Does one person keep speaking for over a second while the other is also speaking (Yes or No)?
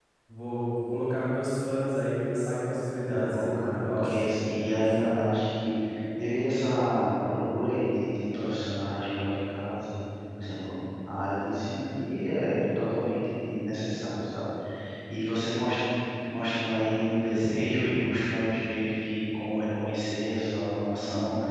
Yes